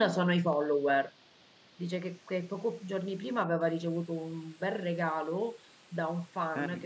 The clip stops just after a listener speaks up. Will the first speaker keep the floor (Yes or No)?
Yes